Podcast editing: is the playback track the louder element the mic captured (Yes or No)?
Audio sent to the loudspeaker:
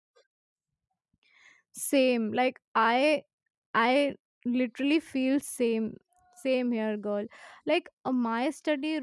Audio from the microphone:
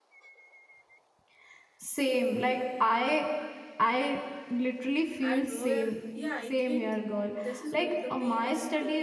Yes